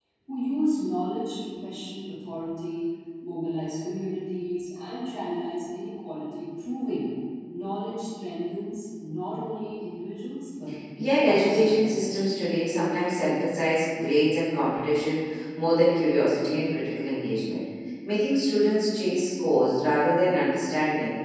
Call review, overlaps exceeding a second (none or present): present